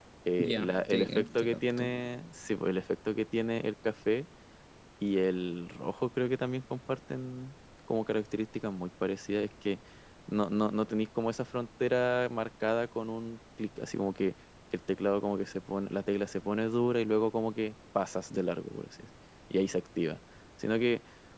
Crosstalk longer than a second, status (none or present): present